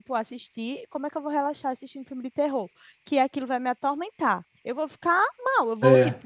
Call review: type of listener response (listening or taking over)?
listening